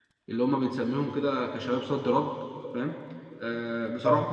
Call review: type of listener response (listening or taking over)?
listening